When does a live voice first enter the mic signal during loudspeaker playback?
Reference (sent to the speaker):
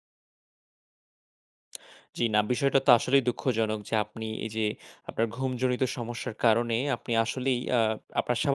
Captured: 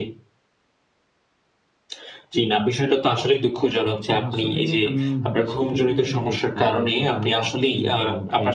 4.1 s

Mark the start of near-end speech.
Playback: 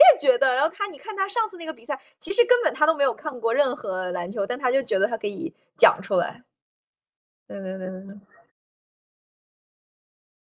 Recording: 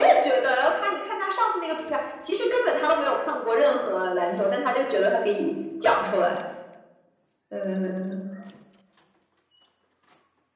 none

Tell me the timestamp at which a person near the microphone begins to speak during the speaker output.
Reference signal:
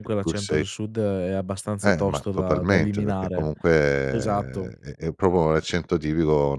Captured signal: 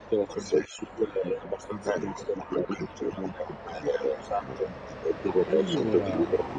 5.5 s

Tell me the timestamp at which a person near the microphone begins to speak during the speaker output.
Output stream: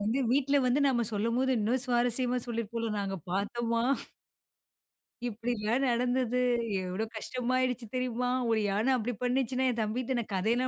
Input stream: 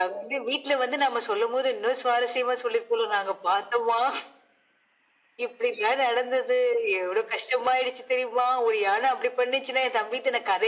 none

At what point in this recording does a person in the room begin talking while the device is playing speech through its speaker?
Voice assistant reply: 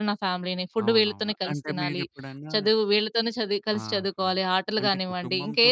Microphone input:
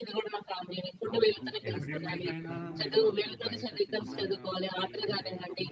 1.4 s

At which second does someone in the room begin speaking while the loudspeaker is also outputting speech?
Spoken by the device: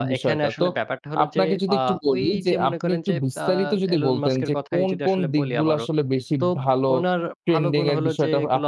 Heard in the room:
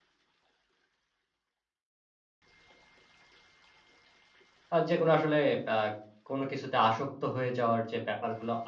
4.7 s

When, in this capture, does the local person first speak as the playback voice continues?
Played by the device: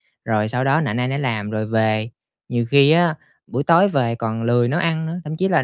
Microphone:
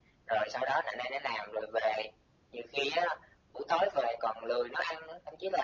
none

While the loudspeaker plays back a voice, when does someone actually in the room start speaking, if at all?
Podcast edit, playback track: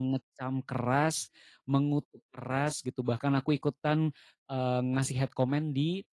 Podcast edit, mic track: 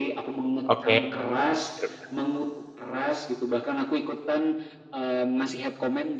0.7 s

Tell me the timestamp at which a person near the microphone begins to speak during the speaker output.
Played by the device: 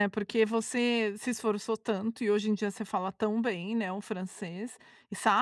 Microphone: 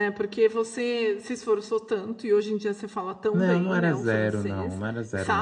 3.3 s

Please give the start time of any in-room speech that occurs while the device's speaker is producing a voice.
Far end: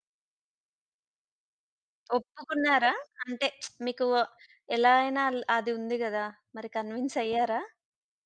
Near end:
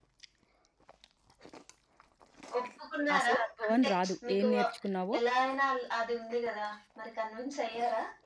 3.2 s

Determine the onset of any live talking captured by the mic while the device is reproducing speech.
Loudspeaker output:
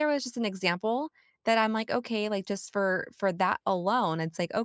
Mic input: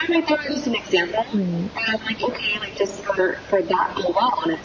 1.3 s

